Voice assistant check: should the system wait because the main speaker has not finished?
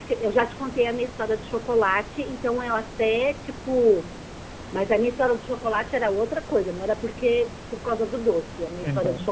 Yes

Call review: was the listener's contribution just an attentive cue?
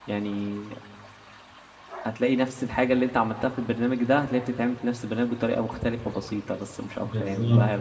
No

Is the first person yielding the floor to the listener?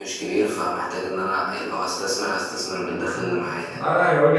Yes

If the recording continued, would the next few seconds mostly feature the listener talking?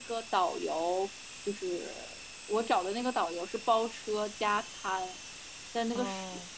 No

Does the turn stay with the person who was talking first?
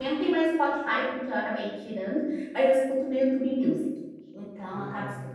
Yes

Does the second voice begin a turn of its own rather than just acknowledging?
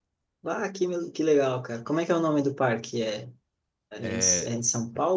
No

